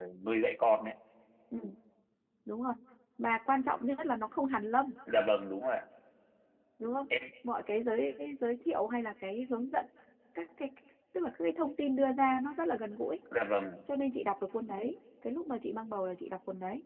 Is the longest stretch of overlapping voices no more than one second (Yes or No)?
Yes